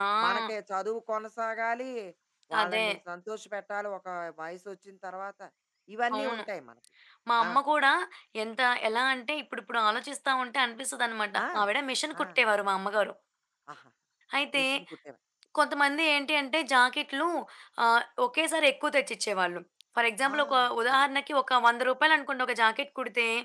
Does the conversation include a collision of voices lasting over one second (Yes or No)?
No